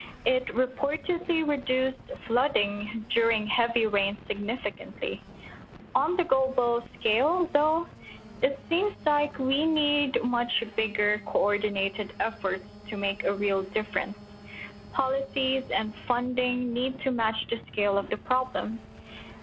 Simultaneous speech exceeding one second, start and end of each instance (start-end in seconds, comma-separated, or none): none